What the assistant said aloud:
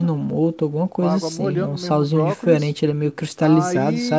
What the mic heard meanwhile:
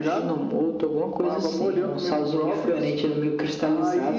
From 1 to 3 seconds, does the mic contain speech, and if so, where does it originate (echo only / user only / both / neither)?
echo only